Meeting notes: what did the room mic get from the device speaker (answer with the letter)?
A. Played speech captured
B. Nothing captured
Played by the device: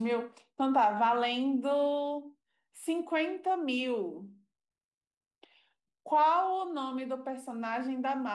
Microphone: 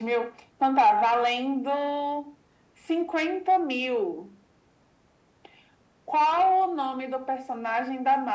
A